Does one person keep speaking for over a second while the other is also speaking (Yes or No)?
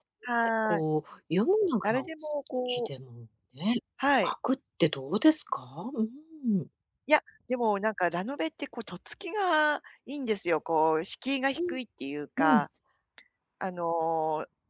No